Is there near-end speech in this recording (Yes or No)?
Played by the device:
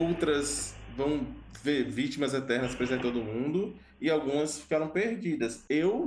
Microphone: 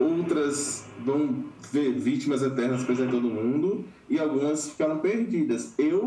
No